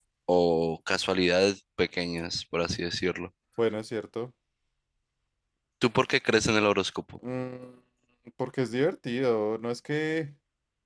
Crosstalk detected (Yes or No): No